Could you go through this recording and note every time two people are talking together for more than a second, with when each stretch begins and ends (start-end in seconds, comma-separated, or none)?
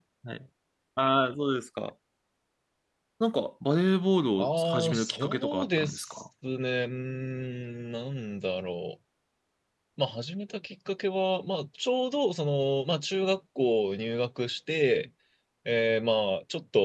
4.4-6.1